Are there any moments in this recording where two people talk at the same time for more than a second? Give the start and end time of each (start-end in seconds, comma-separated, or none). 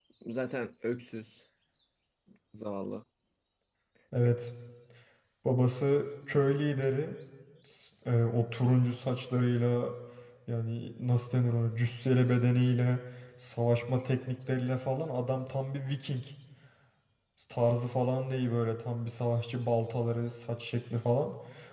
none